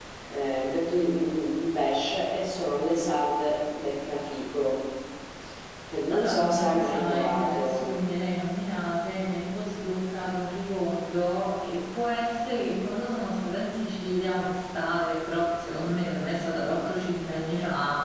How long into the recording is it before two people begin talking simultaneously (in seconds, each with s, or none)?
6.1 s